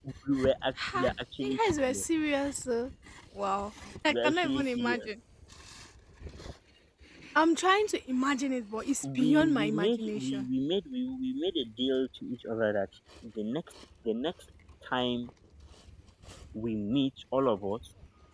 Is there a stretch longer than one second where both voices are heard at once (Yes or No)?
Yes